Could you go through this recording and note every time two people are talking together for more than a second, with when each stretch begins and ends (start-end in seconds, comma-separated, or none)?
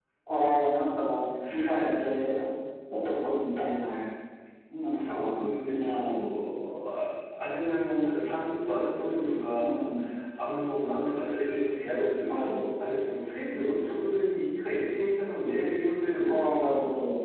4.9-6.3